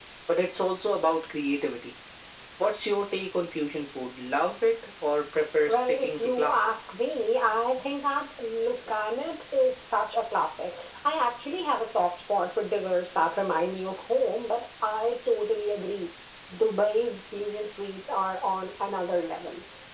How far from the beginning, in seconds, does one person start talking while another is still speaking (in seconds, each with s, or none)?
5.7 s